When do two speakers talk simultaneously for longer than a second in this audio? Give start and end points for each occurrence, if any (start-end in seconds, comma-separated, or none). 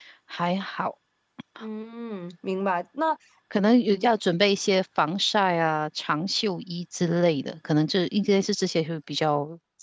none